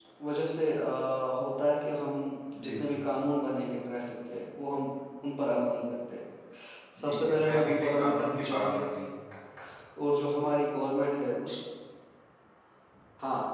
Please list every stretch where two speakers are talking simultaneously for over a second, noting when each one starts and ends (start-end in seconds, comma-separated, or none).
7.0-8.8